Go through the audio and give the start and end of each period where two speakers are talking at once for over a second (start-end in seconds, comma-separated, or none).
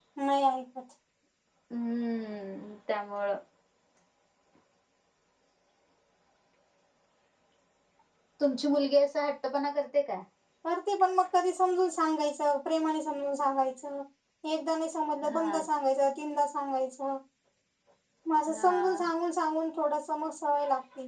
none